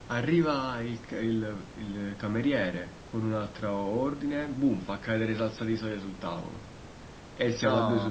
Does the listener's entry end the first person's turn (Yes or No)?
No